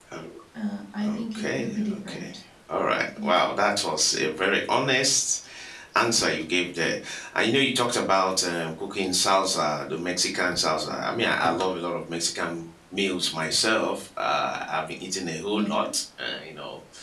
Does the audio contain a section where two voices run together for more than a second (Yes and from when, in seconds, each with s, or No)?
Yes, from 1.0 s